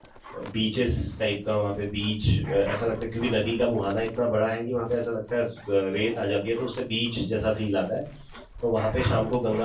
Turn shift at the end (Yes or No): No